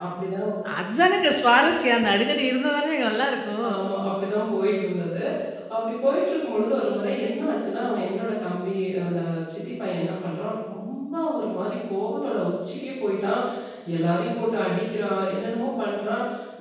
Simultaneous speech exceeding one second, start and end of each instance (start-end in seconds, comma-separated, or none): none